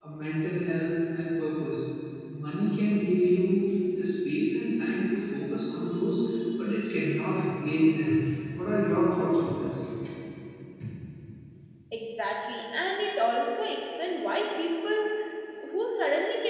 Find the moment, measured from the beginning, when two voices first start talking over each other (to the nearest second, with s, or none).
none